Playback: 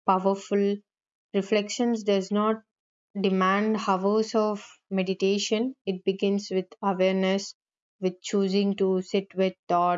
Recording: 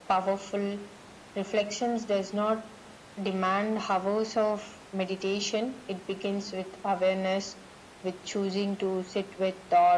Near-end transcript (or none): none